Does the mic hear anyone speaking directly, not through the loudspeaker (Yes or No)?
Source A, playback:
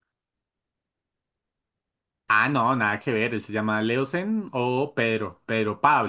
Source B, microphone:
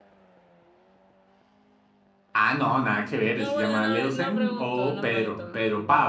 Yes